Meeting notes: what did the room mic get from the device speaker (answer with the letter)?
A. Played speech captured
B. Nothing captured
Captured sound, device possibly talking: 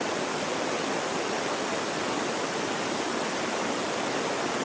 B